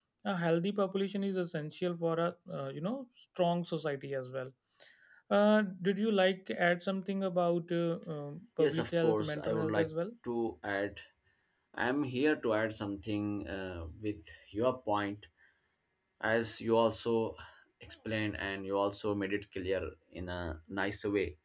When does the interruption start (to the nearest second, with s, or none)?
9 s